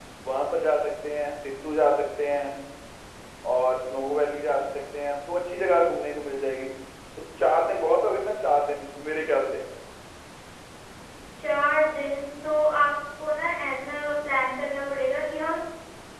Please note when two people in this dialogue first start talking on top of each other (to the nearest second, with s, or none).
none